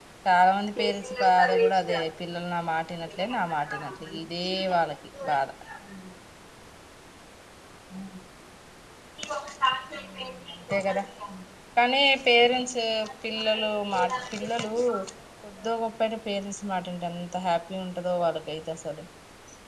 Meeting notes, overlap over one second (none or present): present